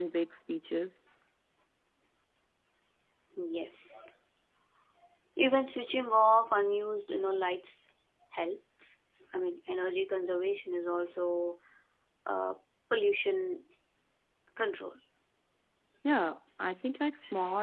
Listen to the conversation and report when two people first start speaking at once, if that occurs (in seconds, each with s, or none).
none